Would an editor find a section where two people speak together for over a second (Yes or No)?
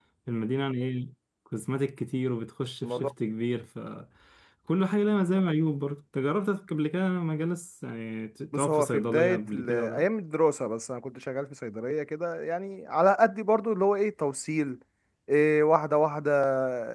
Yes